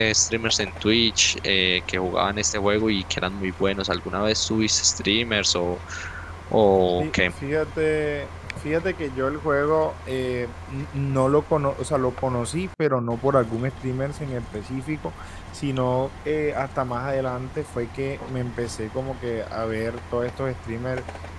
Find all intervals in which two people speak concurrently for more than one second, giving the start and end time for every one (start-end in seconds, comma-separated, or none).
none